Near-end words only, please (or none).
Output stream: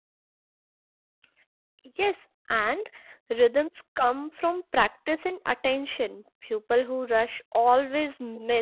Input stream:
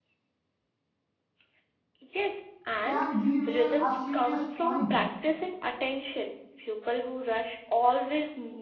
can derail a serious point.